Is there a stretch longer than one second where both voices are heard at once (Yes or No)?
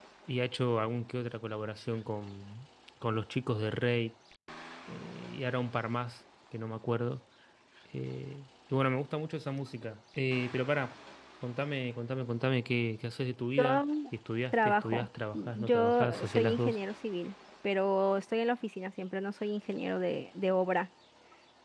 Yes